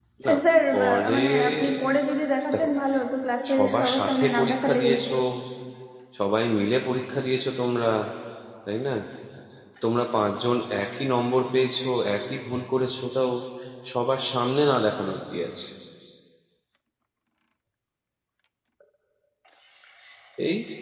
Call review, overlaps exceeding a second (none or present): present